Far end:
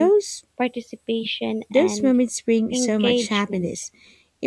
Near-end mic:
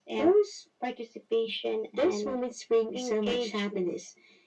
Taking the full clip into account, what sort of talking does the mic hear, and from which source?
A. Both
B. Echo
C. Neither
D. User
B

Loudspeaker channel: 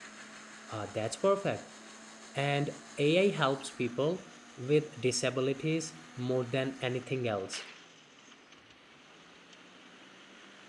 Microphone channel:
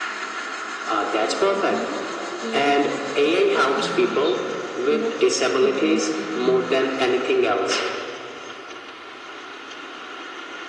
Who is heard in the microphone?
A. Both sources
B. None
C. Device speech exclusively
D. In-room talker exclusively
A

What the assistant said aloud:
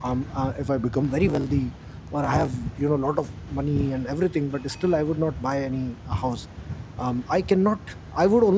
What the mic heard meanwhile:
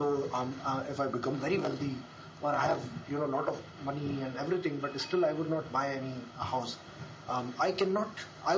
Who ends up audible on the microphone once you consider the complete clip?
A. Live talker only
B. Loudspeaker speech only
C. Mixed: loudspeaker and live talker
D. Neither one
B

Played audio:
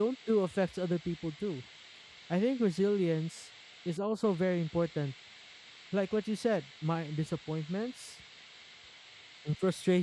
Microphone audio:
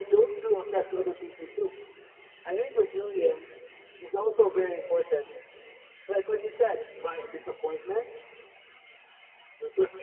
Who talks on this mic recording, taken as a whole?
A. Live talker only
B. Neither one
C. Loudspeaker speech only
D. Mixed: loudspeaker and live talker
D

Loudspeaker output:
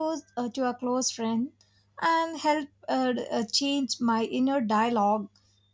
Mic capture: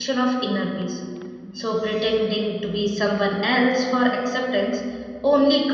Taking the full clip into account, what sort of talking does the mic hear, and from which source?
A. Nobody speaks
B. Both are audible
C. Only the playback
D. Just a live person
D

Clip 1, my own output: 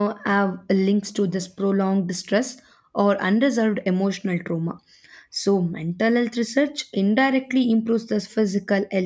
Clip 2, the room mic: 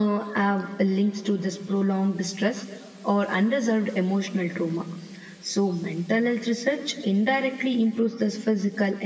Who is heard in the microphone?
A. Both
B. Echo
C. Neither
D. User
B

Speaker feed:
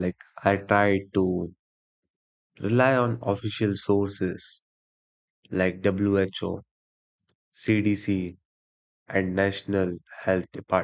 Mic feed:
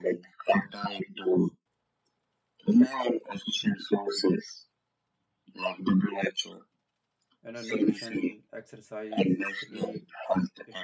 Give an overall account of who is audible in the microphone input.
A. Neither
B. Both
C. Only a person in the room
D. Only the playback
B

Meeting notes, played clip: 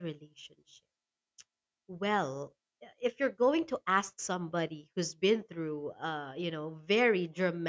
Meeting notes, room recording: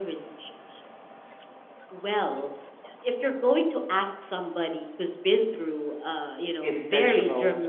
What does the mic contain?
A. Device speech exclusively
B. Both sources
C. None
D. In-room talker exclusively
B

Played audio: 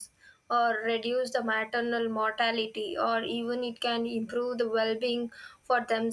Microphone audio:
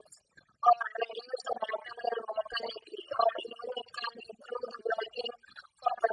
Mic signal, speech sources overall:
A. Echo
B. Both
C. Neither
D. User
A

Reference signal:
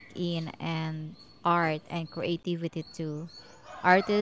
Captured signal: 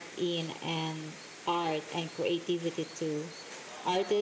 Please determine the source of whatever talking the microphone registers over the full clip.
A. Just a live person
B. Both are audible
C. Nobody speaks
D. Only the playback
D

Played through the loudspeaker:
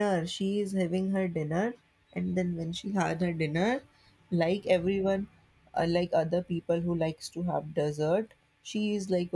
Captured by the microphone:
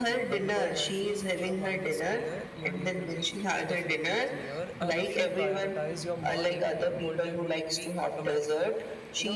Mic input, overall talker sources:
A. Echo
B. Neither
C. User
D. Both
D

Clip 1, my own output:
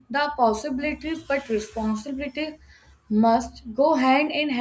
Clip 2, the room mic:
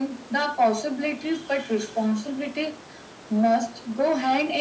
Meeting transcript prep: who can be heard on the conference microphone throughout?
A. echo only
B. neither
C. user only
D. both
A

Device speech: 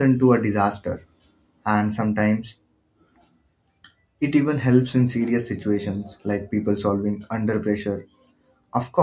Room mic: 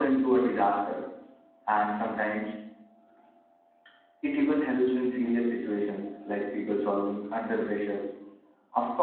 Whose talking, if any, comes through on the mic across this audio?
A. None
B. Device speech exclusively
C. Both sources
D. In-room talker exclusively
B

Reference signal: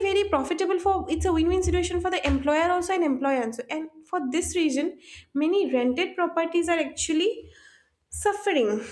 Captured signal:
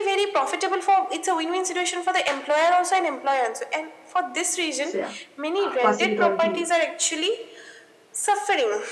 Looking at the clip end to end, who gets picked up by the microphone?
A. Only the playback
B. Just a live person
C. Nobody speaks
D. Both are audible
D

